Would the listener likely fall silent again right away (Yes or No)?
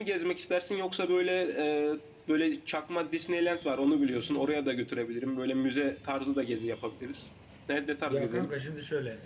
No